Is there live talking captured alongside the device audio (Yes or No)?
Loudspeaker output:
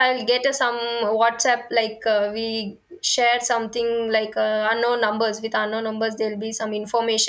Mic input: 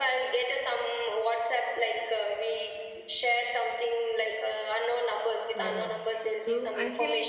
Yes